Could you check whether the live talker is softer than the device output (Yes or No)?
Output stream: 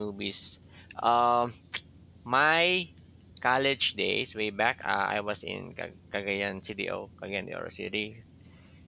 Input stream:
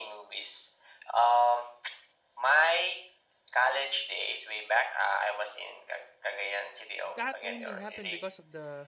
Yes